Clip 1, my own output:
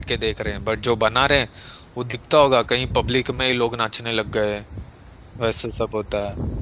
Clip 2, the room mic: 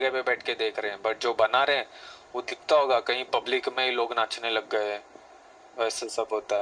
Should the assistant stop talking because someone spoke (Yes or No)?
No